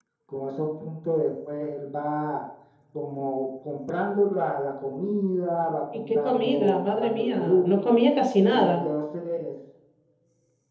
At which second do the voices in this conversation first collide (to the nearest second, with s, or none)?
6 s